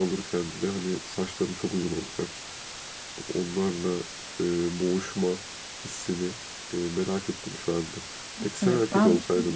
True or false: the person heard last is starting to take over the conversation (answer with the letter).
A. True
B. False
A